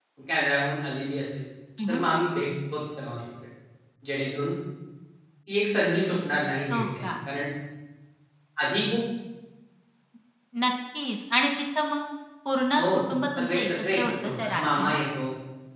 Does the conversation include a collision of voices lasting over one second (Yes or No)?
Yes